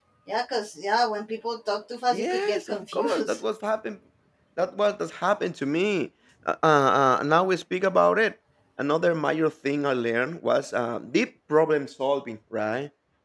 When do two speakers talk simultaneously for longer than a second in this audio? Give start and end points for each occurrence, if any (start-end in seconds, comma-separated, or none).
2.1-3.4